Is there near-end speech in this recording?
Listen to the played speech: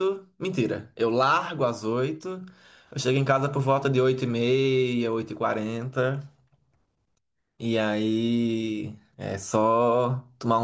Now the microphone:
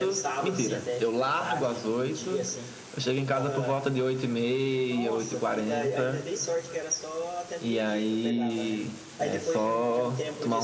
Yes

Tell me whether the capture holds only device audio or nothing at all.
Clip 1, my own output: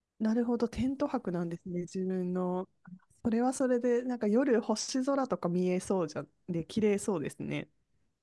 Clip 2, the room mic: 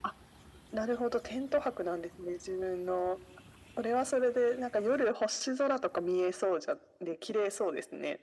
Yes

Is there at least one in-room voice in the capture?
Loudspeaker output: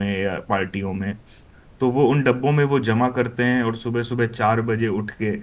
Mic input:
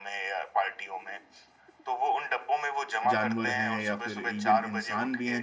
Yes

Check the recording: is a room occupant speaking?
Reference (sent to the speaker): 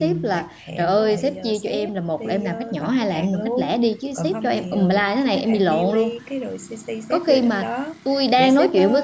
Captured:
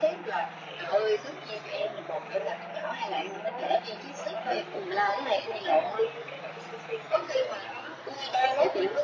No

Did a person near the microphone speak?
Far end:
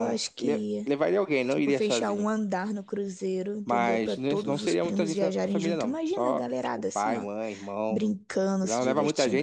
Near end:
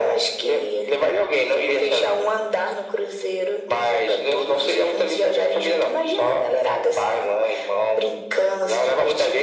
No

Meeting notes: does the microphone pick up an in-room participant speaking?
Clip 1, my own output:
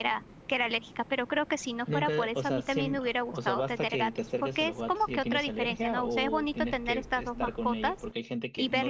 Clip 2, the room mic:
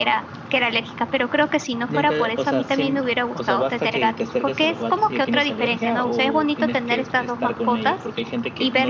No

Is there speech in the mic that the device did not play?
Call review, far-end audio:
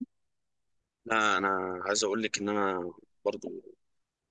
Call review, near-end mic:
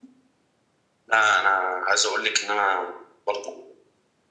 No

